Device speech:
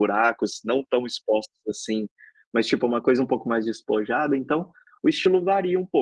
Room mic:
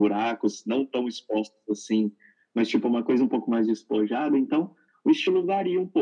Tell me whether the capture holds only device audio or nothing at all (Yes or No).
Yes